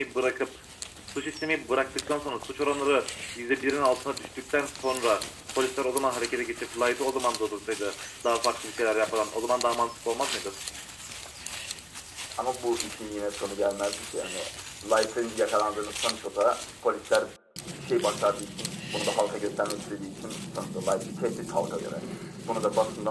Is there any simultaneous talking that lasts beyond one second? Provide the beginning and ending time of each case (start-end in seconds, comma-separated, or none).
none